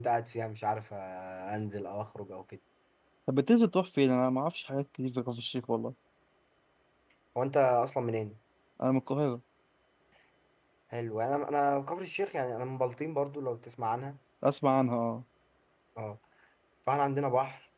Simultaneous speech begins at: none

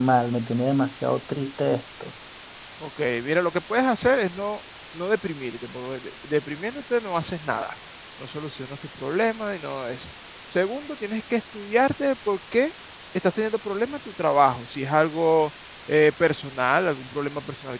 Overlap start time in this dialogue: none

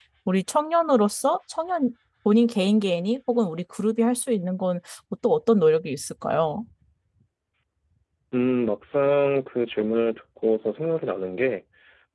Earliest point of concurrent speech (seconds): none

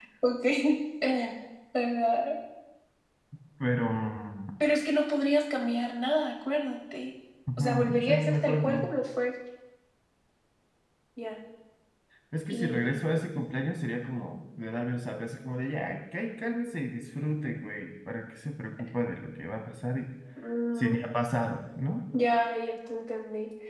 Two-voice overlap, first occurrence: 7.6 s

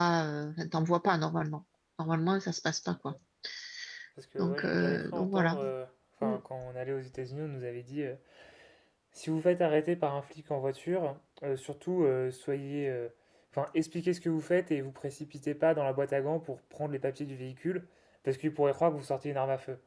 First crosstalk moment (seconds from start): 4.4 s

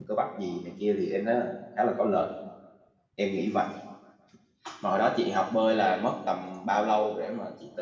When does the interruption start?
none

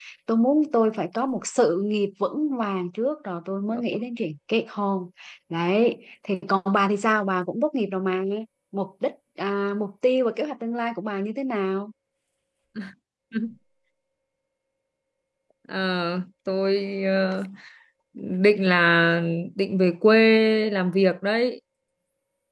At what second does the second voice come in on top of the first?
none

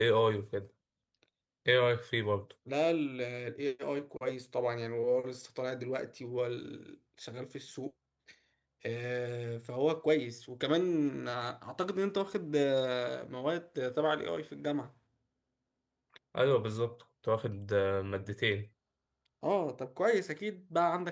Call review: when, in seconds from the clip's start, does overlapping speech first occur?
none

